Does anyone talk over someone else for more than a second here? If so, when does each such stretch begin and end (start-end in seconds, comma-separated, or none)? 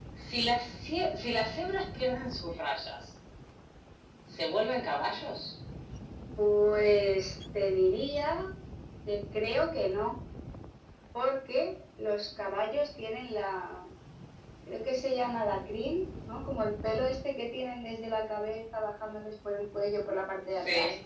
none